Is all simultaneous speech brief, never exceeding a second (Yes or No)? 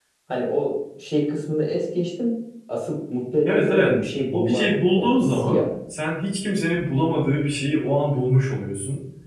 No